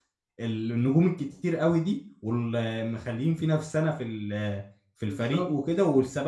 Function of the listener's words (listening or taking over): listening